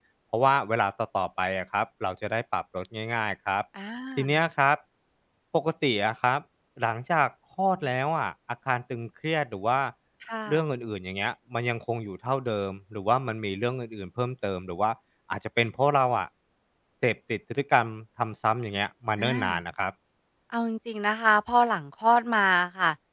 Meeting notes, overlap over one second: none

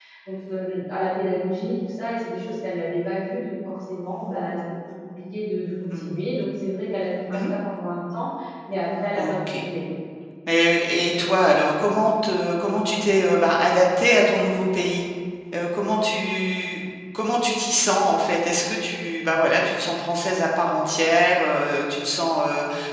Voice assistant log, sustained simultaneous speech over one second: none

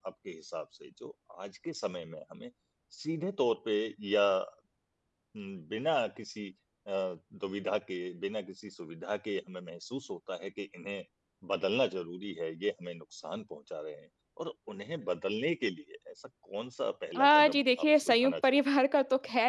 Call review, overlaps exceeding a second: present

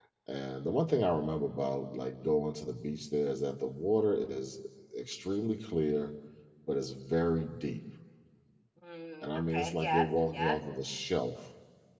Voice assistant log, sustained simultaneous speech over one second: present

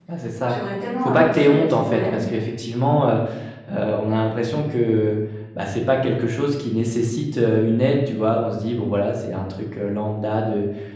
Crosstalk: present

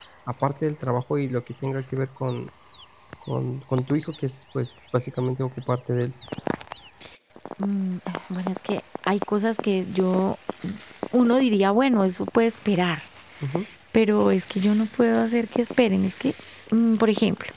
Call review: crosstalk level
none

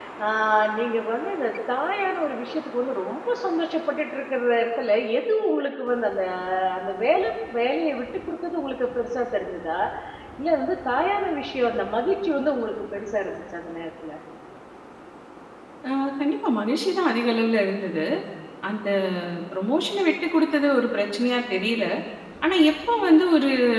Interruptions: none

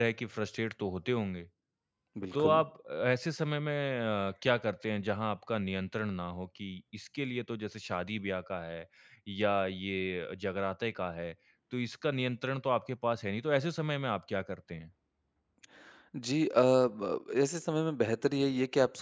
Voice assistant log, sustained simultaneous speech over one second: none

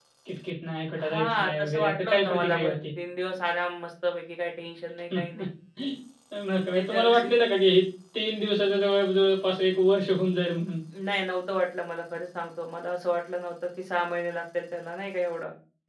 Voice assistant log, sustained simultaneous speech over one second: present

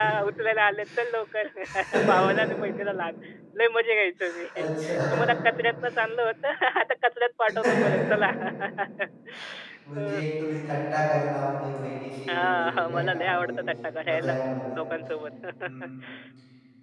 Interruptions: present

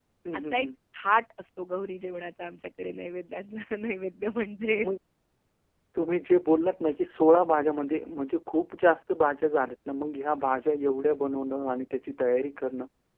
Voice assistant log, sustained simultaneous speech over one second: none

